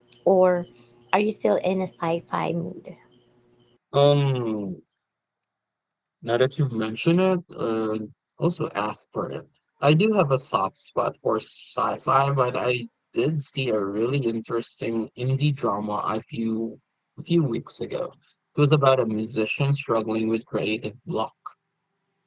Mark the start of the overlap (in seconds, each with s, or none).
none